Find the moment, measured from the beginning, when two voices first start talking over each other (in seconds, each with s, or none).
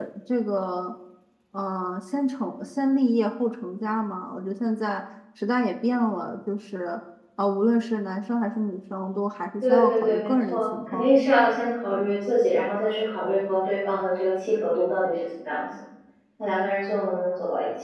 9.6 s